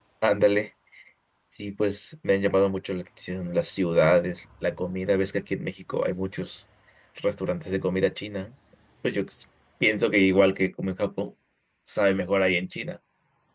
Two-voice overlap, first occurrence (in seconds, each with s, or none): none